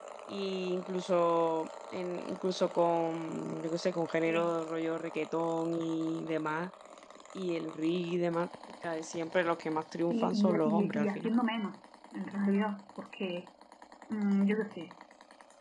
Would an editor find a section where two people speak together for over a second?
Yes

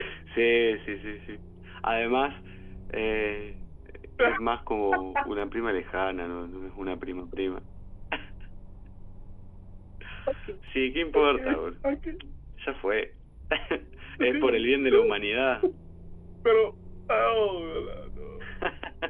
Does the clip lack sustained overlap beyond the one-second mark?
Yes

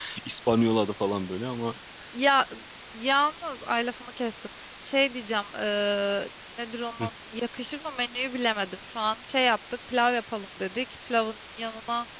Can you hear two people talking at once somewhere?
No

